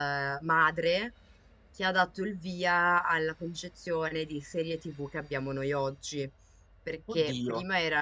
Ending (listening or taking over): listening